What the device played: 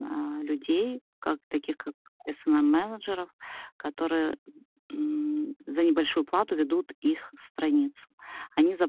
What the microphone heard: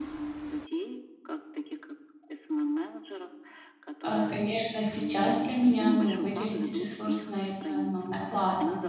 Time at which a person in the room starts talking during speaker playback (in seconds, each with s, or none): 4.0 s